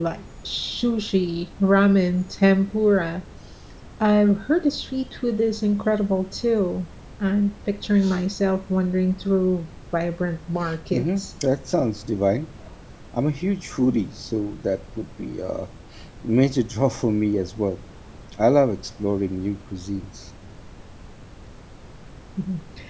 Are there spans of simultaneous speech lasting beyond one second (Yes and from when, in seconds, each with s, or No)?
No